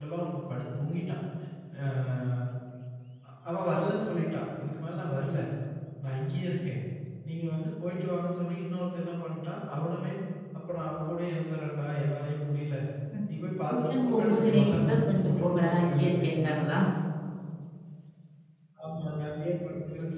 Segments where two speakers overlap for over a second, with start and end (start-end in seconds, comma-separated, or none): 13.7-16.5